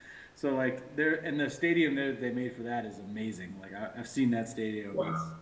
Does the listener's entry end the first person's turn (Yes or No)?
No